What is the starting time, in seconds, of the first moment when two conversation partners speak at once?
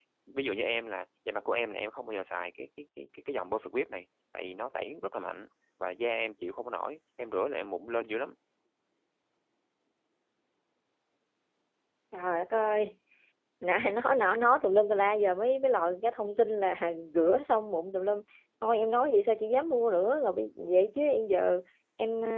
none

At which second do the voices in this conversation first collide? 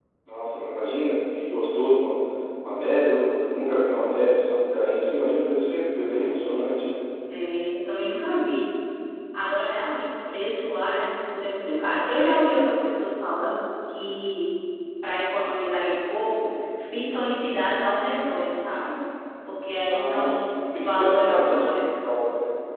19.8 s

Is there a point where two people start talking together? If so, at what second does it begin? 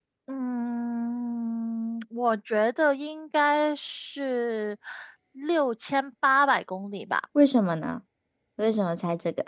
none

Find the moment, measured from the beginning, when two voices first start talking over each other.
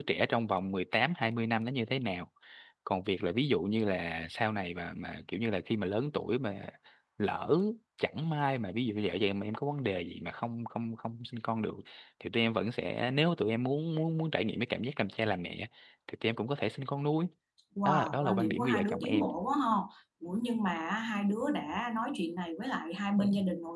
17.8 s

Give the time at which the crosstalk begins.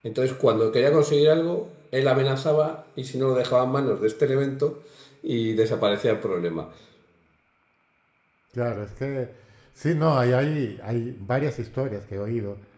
none

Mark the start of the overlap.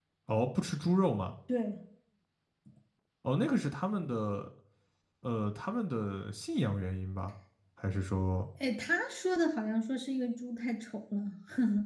none

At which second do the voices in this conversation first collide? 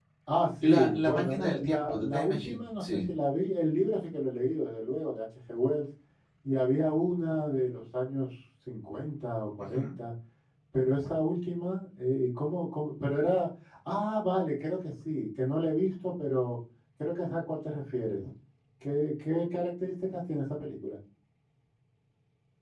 0.6 s

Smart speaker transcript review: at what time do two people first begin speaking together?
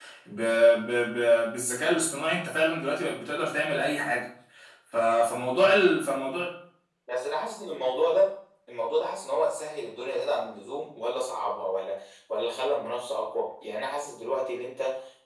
none

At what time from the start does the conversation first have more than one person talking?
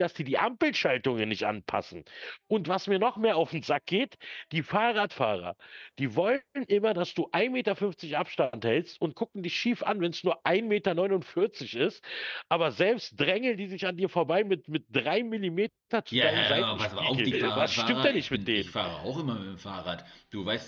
16.1 s

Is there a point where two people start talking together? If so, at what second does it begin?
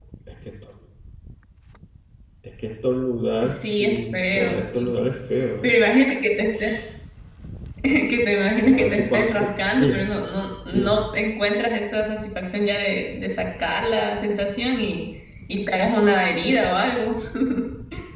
3.4 s

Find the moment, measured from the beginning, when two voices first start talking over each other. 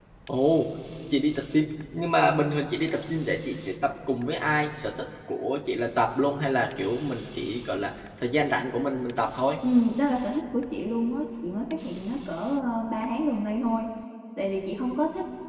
none

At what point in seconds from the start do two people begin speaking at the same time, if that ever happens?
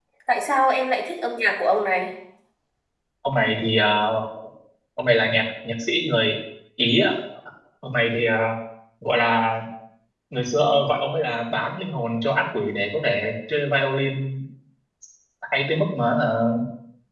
none

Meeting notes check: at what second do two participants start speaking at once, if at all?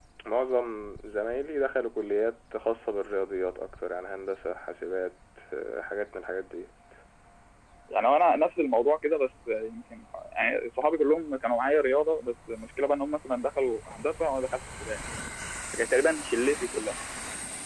none

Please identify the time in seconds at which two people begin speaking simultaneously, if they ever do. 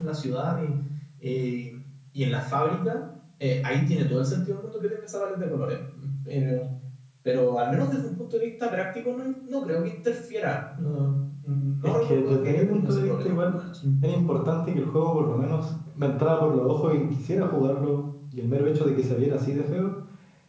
11.8 s

